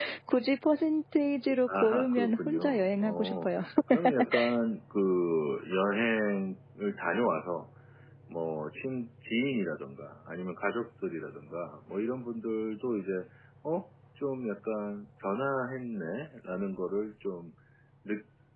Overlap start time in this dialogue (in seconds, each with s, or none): 1.7 s